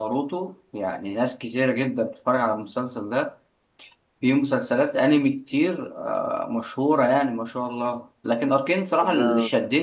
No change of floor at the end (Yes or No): Yes